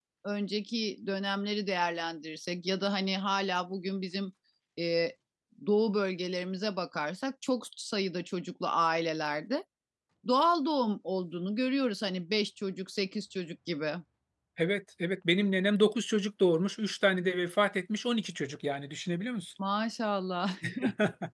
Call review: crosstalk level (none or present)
none